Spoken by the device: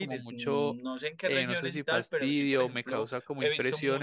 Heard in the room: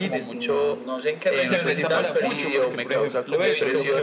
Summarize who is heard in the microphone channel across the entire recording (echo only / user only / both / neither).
both